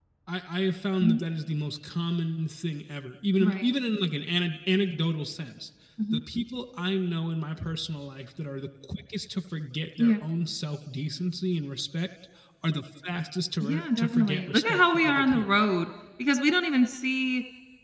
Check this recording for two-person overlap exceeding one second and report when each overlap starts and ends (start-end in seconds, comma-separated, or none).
13.6-15.6